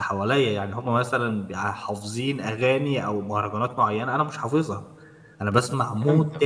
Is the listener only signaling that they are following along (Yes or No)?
Yes